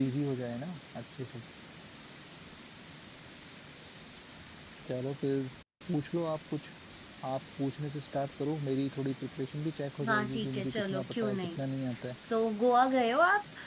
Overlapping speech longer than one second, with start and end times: 10.1-11.6

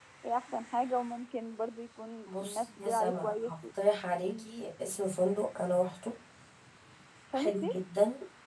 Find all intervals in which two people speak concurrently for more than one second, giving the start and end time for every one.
2.3-3.5

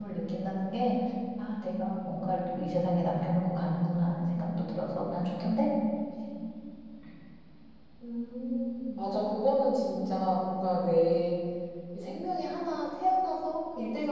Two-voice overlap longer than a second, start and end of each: none

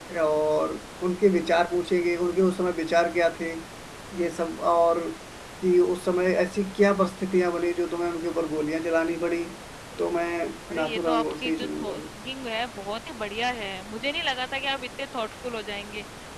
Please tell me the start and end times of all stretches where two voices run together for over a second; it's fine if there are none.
10.7-12.0

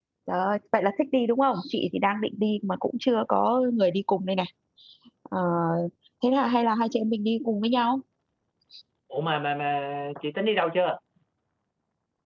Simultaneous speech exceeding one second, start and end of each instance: none

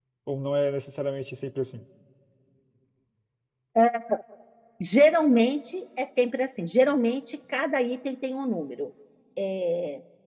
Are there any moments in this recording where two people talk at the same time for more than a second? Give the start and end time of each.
none

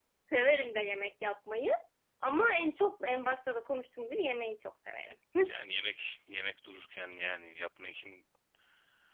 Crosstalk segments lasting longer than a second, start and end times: none

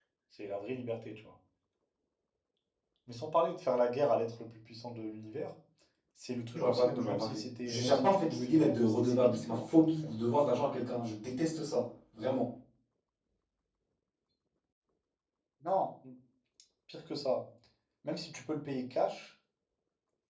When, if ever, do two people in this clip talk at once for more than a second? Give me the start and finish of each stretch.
6.5-10.1

